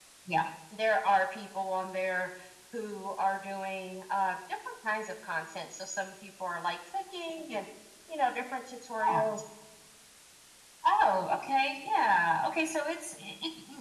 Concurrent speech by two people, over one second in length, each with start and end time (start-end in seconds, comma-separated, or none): none